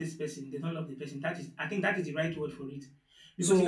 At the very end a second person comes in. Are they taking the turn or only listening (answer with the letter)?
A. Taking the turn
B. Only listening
A